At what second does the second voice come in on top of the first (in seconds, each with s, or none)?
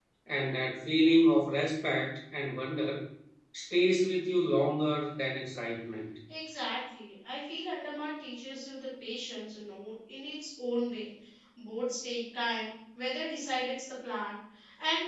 none